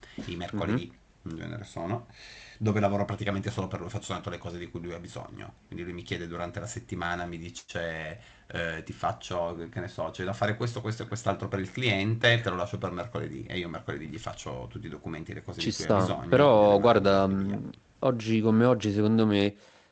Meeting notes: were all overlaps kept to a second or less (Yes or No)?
No